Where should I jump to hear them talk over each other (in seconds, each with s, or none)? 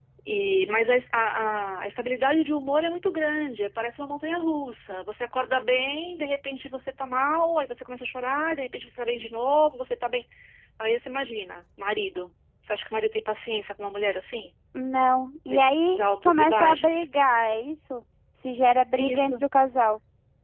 15.5 s